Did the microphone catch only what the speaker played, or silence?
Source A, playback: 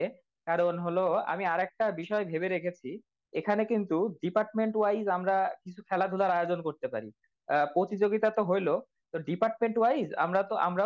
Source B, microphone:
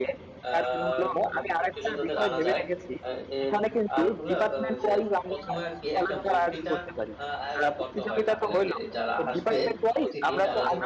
No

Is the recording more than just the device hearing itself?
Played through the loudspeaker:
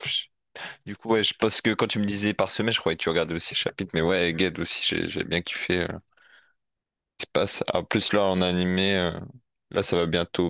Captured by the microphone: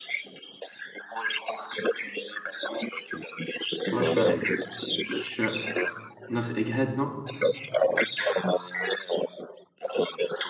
Yes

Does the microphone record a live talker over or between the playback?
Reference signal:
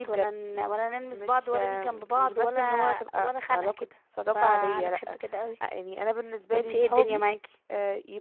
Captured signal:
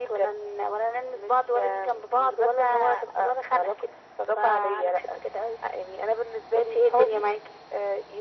No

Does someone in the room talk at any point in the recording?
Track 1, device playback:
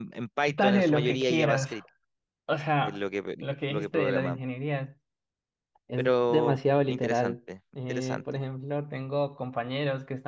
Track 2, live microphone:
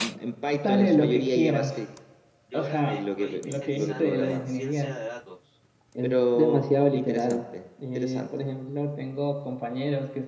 Yes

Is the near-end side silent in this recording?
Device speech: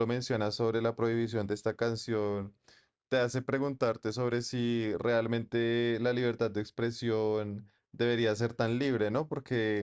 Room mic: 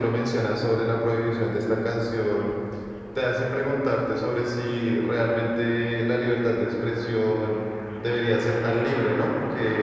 Yes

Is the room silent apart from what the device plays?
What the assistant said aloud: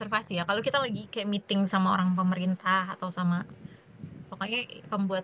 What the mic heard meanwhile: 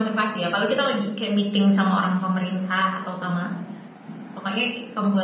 Yes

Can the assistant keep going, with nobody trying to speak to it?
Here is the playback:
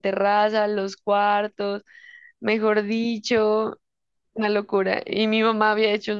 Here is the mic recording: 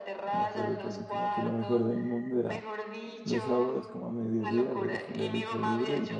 No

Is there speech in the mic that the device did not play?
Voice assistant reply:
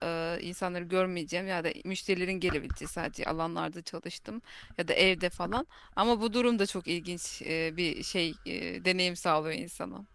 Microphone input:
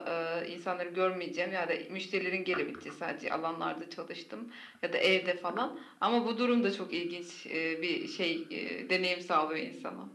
No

